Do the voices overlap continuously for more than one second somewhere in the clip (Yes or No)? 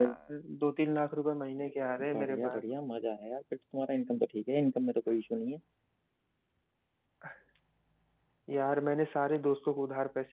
No